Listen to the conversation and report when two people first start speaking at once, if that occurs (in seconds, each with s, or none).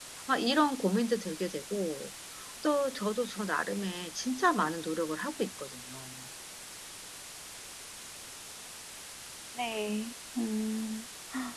none